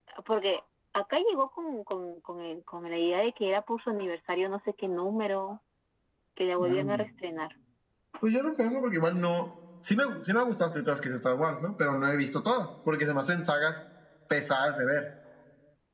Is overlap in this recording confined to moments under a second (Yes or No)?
Yes